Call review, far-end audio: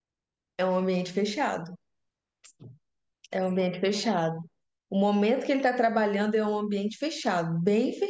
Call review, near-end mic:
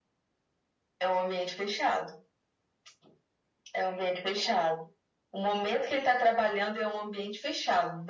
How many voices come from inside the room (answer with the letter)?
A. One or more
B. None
B